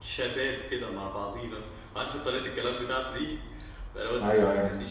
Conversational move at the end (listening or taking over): listening